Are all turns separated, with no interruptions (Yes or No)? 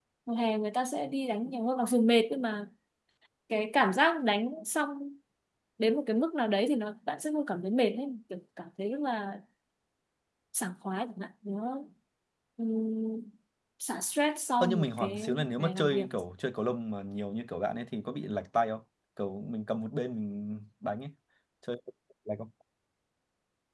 No